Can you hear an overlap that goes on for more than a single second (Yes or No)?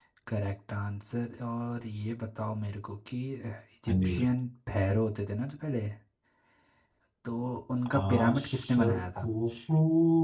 Yes